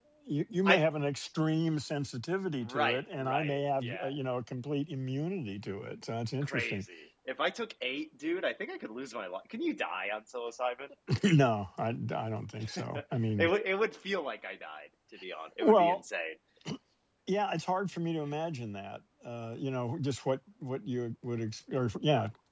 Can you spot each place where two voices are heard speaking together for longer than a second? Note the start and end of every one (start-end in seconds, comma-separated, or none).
2.6-4.1